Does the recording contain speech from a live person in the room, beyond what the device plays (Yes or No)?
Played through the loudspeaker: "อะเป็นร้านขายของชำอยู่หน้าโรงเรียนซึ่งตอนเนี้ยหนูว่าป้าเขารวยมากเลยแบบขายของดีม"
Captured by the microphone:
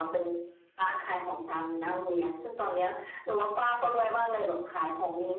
No